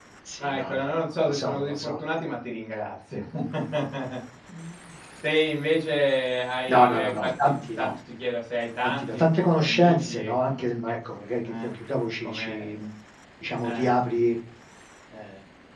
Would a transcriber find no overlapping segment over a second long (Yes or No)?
No